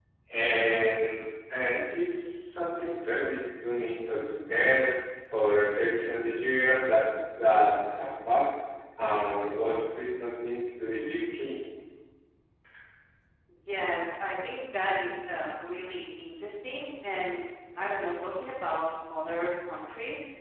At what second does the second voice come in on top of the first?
none

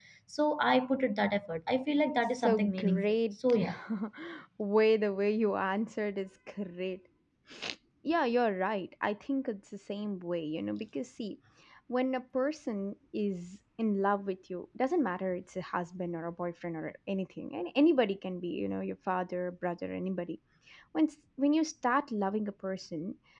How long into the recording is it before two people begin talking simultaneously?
2 s

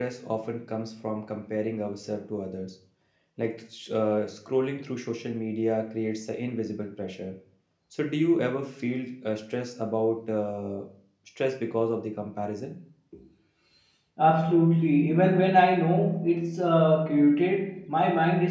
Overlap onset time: none

